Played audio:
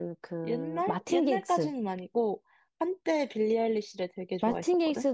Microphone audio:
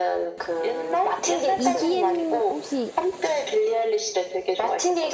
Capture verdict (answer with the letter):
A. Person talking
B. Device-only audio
A